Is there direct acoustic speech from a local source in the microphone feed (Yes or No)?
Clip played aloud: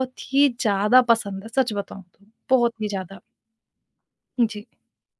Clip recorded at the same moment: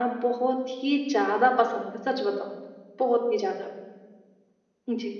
No